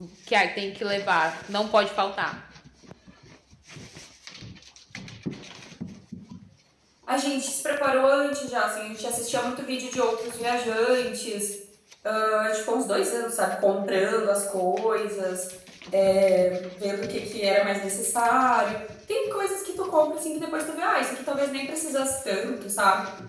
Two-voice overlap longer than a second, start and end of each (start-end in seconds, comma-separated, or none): none